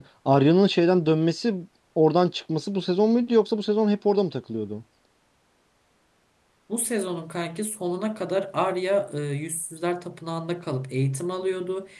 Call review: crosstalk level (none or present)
none